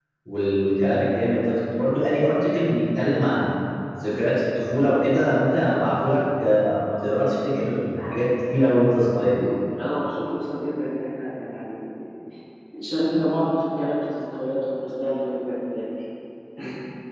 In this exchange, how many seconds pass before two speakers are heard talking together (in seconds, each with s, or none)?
none